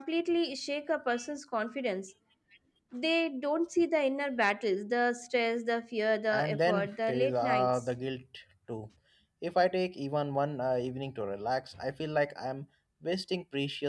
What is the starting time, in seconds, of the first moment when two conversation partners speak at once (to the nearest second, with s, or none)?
6 s